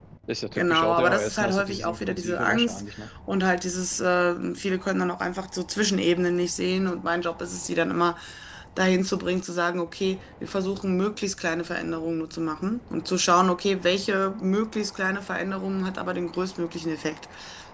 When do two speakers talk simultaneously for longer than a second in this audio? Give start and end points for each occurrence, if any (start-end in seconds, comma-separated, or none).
0.6-2.8